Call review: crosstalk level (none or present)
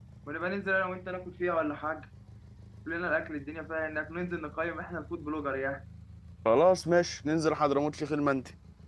none